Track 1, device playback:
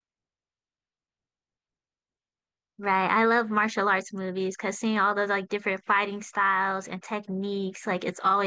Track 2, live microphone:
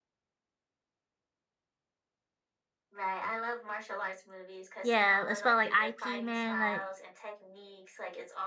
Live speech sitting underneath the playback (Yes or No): No